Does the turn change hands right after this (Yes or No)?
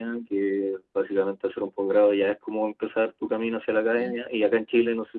No